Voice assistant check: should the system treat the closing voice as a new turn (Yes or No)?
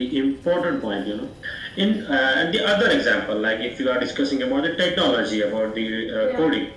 No